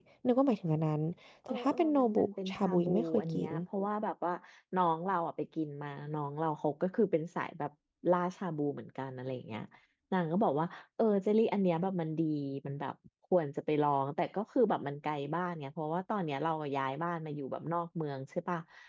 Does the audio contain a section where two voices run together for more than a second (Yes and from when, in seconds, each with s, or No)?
Yes, from 1.5 s